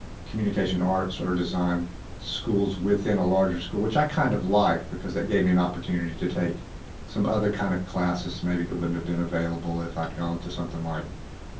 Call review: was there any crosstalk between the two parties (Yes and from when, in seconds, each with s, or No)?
No